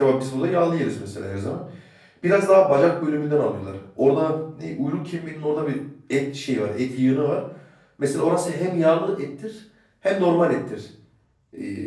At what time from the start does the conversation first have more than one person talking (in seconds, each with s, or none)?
none